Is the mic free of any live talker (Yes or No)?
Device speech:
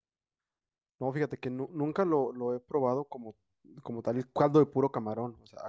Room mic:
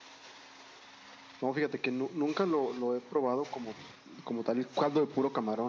Yes